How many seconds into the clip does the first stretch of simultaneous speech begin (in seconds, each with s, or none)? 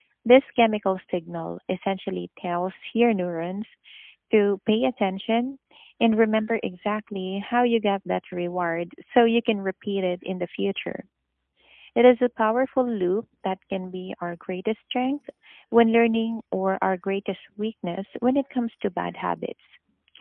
none